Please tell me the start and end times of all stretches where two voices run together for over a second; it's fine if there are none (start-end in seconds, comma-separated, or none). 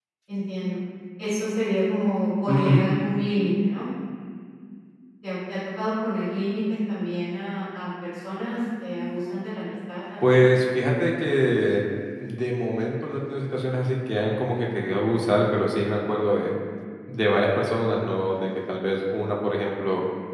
none